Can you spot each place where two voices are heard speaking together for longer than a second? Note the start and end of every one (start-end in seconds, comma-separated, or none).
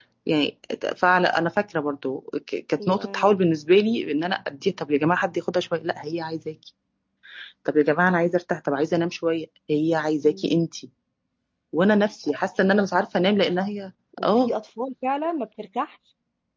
none